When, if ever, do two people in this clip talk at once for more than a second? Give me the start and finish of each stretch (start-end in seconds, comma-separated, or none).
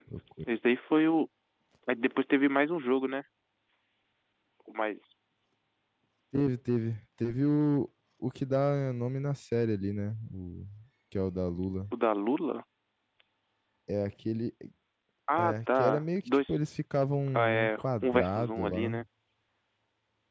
15.4-16.6, 17.3-19.0